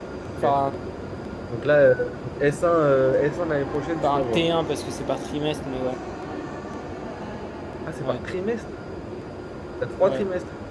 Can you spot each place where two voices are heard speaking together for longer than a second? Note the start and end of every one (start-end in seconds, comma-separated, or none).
none